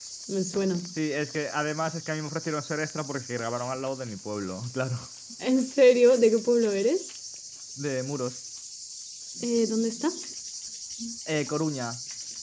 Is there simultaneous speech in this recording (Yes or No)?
No